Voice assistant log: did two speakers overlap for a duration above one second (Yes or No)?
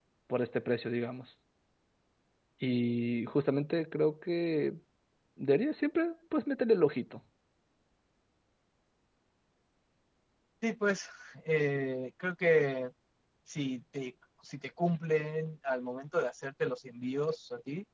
No